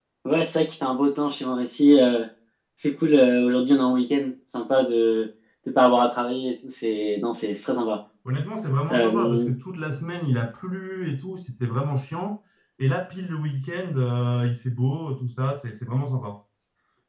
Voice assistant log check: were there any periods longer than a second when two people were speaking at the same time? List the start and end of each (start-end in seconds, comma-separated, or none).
none